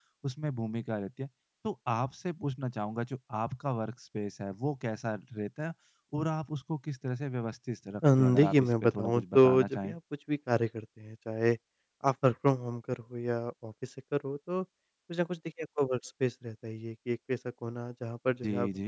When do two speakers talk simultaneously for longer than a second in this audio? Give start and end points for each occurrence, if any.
8.2-9.9

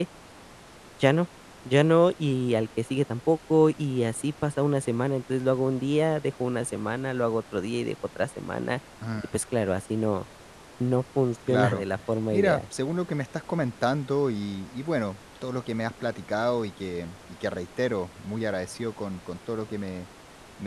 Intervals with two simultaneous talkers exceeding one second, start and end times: none

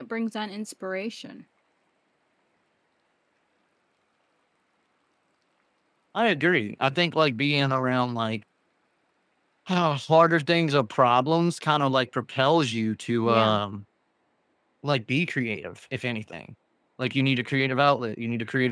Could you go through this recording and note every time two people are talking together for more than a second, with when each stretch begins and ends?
none

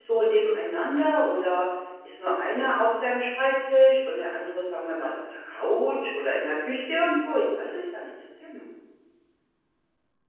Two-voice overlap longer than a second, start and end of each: none

